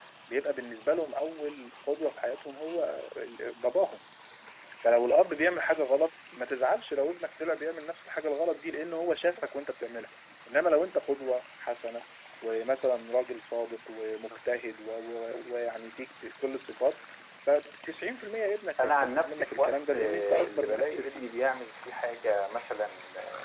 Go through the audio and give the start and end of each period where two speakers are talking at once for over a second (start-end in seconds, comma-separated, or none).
18.8-21.3